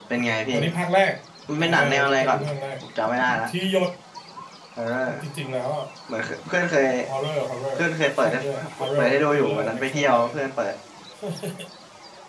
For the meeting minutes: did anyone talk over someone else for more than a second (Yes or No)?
Yes